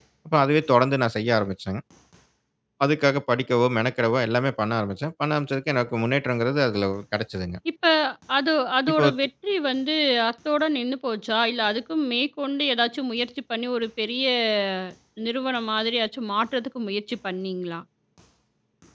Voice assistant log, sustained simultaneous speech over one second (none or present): none